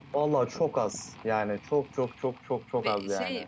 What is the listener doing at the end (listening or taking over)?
taking over